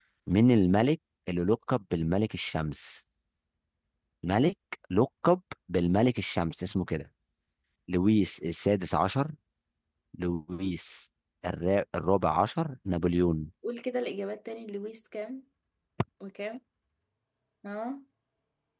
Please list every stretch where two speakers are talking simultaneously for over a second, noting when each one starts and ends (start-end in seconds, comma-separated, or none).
none